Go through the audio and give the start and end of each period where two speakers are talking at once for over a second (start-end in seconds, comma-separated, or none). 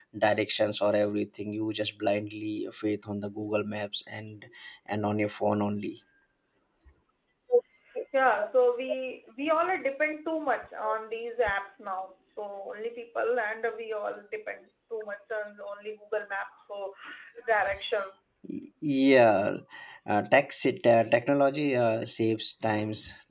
none